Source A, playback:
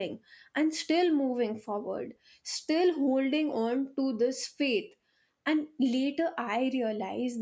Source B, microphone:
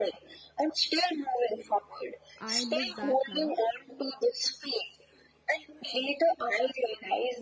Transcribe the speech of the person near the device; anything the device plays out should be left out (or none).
i look back now